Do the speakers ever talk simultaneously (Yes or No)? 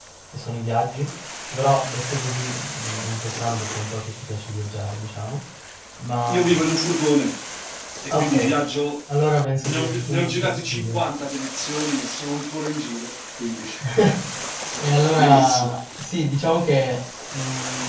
Yes